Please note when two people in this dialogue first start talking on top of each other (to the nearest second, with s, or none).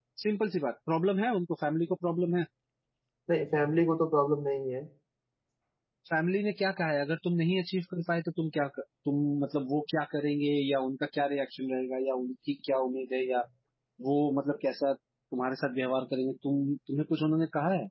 none